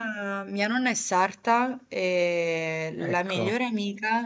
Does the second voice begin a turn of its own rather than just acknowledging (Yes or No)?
No